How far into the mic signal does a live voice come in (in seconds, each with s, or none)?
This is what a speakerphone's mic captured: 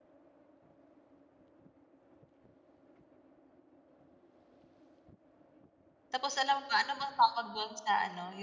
6.1 s